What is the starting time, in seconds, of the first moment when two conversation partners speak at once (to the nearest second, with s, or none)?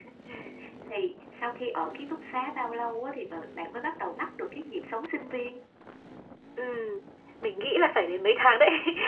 none